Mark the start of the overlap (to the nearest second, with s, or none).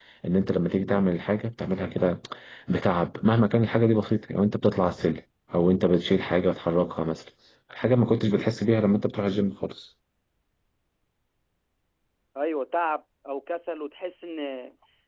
none